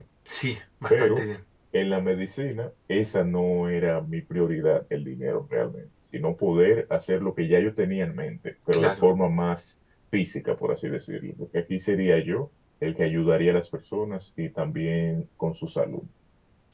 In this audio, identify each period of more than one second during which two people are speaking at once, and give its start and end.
none

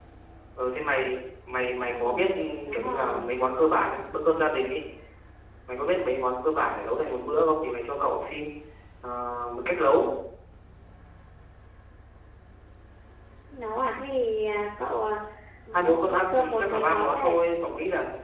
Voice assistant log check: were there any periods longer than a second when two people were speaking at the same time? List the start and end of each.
15.7-17.4

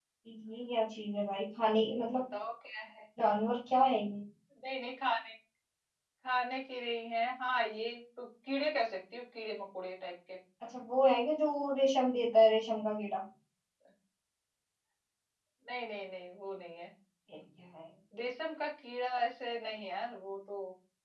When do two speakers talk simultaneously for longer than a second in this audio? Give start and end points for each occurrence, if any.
none

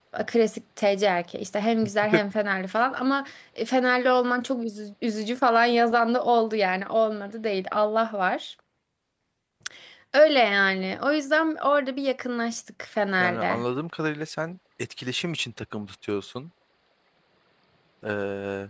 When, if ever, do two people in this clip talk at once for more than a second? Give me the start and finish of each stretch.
none

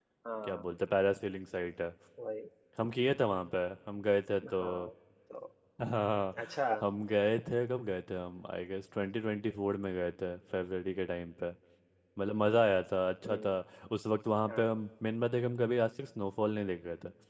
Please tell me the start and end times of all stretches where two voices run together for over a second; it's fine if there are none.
none

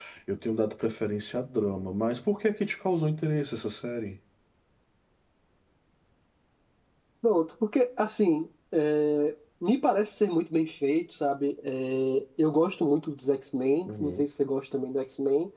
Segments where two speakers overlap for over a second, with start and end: none

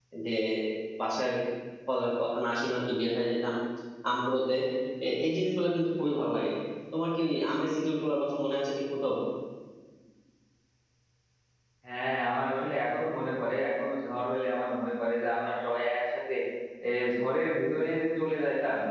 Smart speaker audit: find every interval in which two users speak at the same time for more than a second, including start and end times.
none

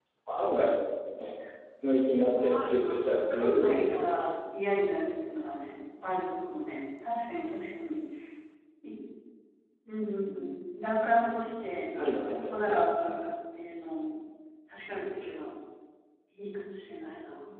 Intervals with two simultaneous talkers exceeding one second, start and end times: 2.2-4.1

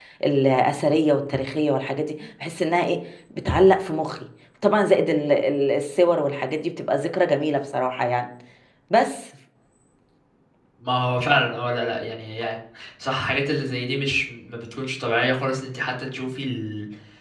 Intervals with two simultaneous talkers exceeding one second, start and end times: none

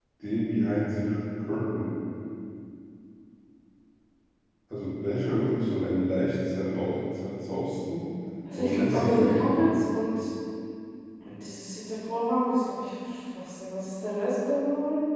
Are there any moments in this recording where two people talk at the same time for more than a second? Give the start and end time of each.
8.5-9.8

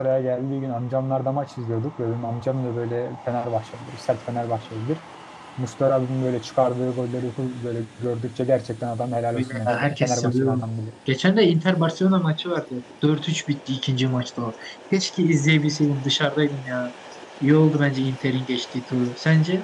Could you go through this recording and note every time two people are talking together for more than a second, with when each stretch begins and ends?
9.3-10.6

